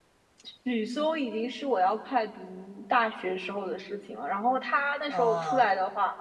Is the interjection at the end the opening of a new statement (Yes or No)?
No